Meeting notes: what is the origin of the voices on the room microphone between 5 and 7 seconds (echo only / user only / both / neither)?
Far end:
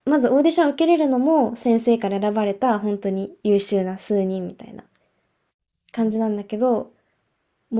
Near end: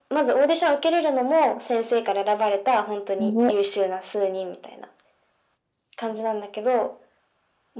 echo only